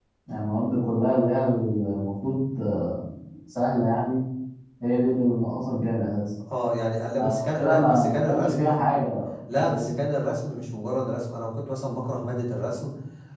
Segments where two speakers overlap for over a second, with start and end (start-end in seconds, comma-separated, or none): 7.2-8.7